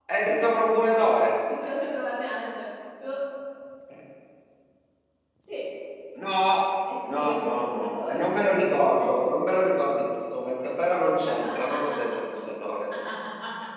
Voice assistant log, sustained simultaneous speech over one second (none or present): present